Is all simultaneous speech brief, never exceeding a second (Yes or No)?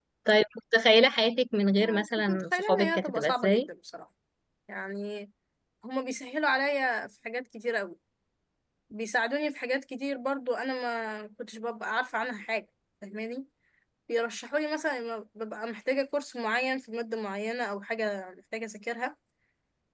No